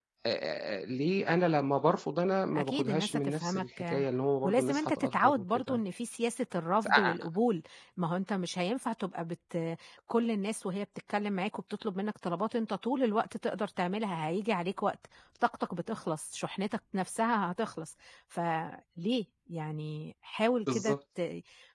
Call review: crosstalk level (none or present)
present